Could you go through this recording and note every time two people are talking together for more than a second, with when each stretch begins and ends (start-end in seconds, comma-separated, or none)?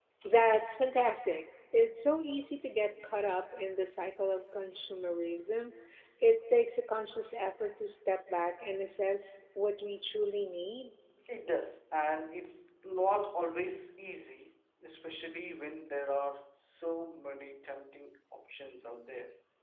none